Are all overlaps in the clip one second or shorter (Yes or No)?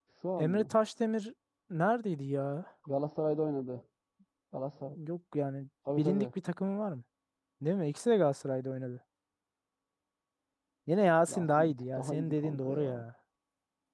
No